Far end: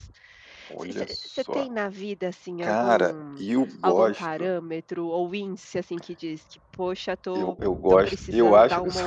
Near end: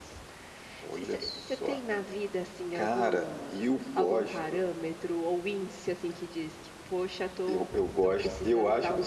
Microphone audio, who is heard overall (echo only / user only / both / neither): echo only